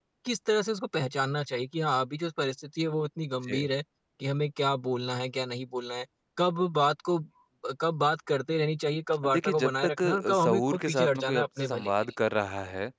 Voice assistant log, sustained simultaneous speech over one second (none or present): present